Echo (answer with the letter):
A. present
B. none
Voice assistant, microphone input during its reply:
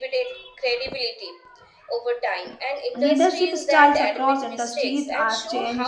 A